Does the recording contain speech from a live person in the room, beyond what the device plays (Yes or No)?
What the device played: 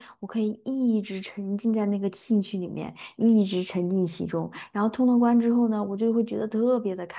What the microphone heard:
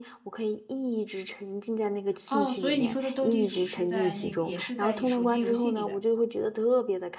Yes